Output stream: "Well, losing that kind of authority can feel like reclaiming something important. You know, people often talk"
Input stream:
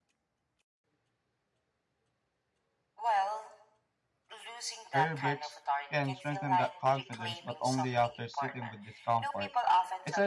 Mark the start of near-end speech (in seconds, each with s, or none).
4.9 s